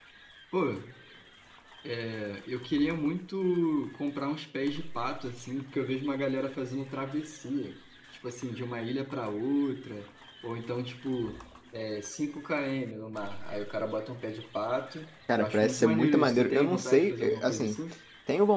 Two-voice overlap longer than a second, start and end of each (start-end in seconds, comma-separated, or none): 15.4-17.8